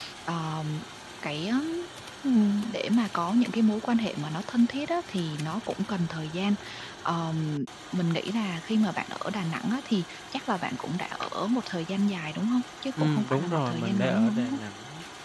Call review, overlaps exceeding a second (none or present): present